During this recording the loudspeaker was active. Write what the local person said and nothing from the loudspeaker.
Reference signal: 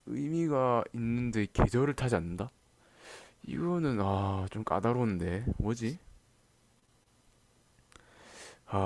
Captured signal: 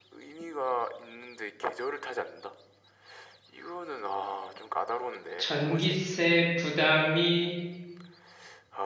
전기세 부담이

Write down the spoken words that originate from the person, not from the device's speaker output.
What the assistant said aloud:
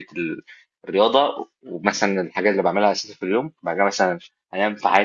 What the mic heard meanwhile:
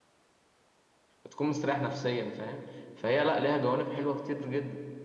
بتكون مستريح نفسيا فاهم فهي لا ليها جوانب حلوة كتير جدا

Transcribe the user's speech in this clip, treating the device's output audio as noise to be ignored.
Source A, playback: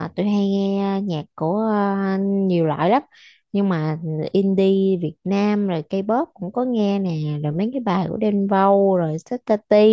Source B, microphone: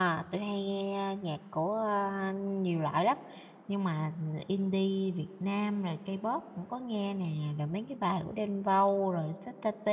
none

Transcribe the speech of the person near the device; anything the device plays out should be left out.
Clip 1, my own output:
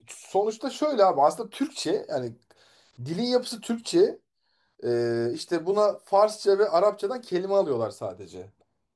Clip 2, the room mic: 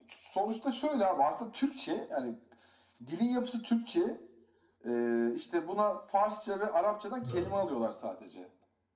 doğru.

